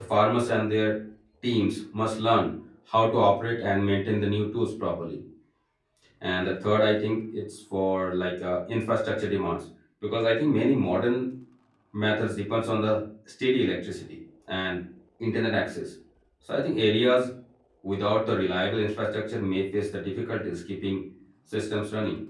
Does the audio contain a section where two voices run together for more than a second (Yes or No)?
No